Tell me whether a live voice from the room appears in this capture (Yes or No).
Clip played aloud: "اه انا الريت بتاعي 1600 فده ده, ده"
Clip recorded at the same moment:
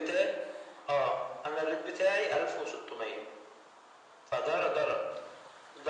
No